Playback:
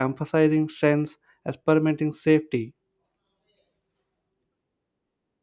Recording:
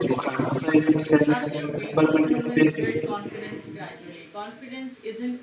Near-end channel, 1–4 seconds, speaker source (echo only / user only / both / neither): both